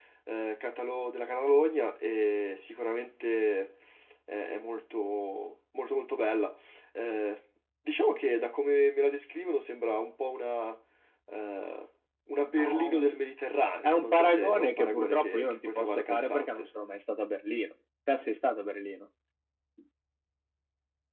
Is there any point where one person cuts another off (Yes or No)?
Yes